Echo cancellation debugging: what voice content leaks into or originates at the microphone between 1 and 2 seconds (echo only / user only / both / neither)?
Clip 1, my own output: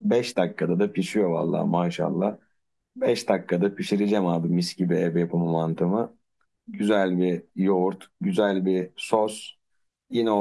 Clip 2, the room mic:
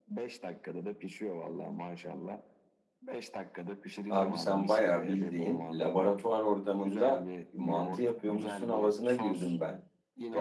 echo only